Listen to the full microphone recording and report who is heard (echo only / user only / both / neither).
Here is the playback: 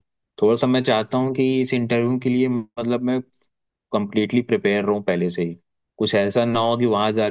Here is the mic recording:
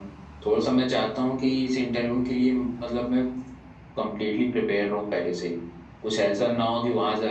echo only